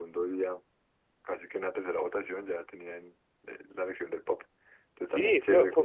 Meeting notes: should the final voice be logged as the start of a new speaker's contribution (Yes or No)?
Yes